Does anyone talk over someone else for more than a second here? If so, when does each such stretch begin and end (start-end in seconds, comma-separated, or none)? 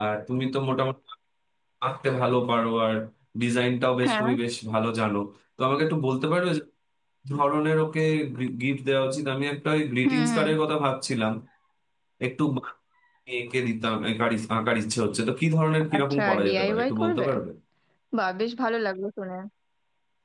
16.0-17.3